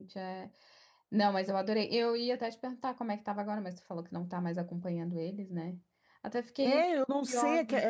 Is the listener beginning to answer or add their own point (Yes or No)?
Yes